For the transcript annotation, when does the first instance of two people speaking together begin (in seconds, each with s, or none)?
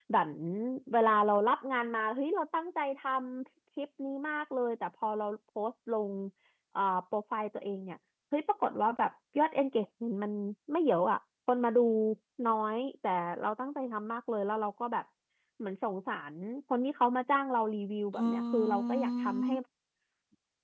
18.1 s